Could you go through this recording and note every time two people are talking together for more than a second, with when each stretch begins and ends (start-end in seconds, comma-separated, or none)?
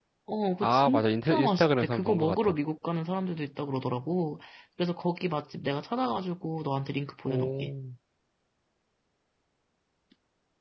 0.6-2.5